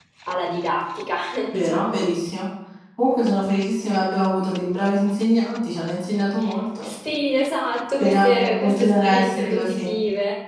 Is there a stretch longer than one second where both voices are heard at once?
Yes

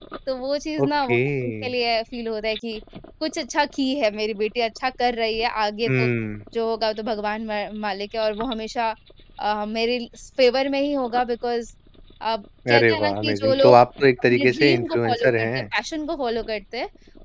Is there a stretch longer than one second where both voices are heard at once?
Yes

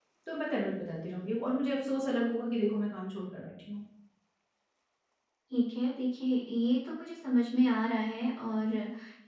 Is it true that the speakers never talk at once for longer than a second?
Yes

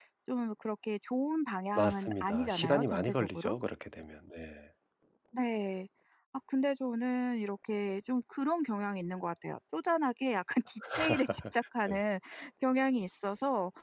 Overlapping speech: Yes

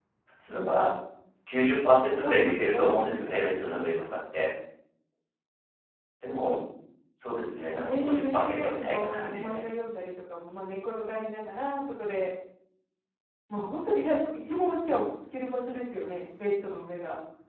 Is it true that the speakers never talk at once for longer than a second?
No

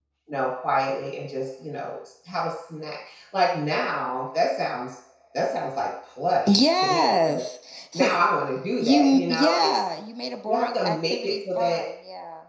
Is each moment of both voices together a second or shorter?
No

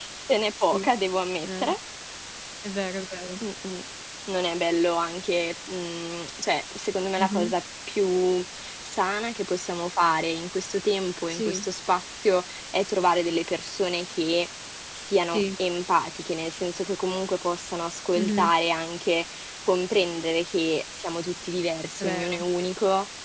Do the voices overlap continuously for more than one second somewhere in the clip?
No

